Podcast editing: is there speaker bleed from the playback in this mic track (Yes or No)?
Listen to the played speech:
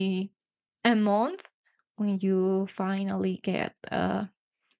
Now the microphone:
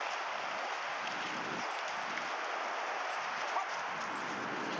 No